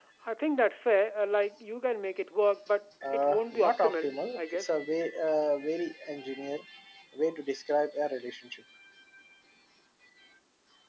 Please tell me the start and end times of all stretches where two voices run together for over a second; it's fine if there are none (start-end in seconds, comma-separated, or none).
3.1-4.6